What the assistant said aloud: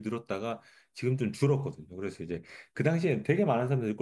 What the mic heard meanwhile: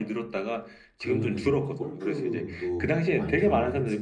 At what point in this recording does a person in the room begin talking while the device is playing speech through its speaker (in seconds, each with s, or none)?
1.0 s